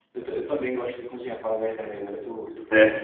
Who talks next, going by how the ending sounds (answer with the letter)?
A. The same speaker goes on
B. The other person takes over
A